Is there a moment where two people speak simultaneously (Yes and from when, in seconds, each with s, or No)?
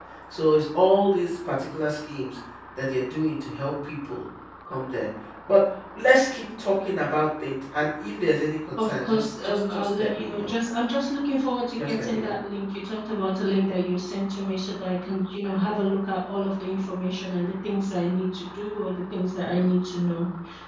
Yes, from 8.8 s